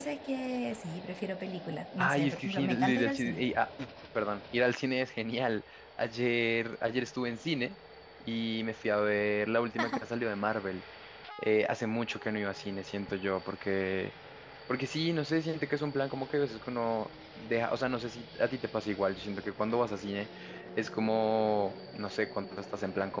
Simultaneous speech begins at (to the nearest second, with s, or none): 2 s